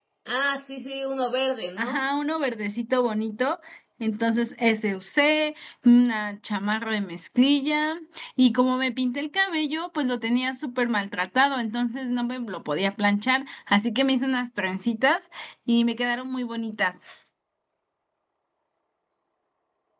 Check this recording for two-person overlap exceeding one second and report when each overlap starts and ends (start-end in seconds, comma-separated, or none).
none